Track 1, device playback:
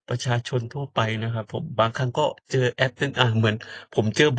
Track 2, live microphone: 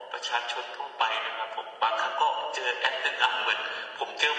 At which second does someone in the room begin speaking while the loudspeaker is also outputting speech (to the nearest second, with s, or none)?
none